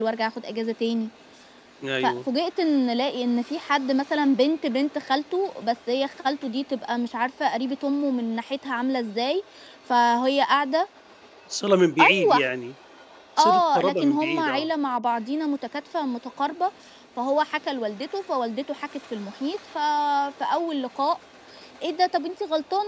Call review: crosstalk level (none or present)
present